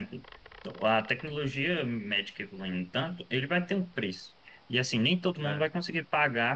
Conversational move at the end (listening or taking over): listening